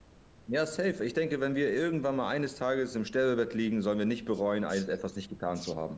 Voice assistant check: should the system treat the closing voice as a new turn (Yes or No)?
Yes